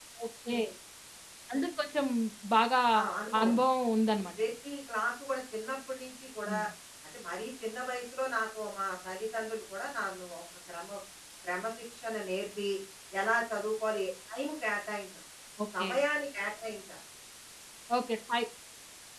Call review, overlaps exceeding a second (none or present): none